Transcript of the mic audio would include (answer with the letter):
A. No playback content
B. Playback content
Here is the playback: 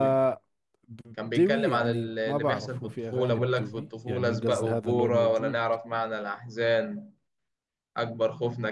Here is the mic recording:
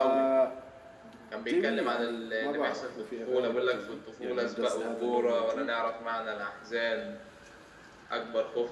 B